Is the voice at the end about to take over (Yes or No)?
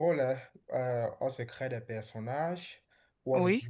No